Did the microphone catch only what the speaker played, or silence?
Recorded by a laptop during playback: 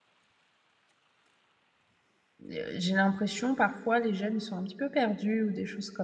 No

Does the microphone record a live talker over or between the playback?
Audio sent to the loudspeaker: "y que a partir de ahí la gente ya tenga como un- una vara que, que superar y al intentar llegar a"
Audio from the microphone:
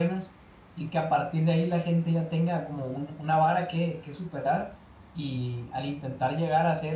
No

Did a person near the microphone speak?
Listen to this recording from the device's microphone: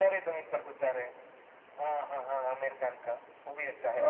No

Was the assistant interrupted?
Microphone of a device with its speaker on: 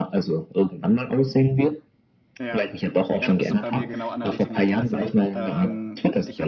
Yes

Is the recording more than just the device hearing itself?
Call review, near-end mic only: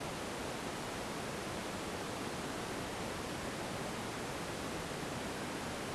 No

